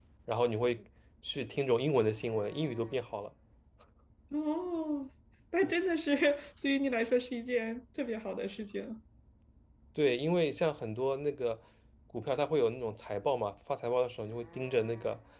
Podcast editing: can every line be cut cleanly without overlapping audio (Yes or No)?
Yes